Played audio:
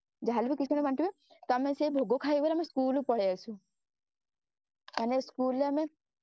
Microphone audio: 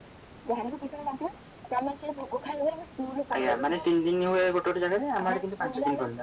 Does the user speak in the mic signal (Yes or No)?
Yes